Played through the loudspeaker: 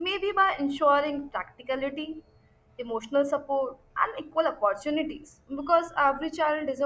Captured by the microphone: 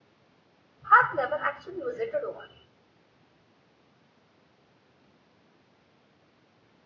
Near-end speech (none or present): present